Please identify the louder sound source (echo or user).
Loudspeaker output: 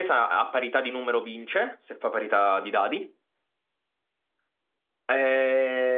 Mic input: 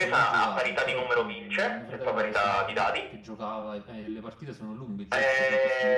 echo